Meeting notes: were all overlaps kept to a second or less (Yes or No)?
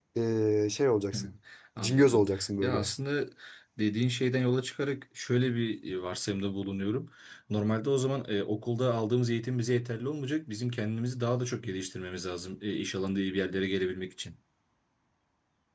Yes